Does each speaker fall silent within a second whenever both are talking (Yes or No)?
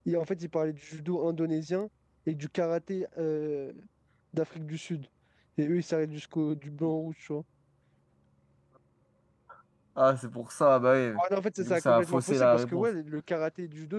No